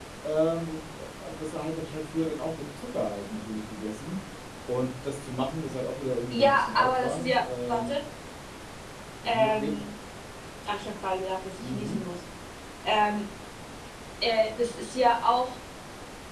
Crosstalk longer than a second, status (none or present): present